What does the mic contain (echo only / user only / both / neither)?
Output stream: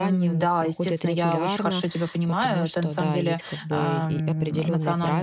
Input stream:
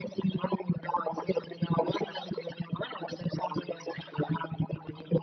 echo only